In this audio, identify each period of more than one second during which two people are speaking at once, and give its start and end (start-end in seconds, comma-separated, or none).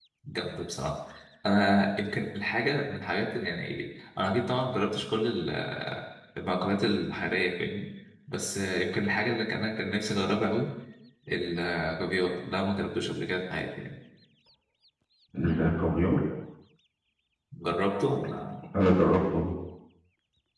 none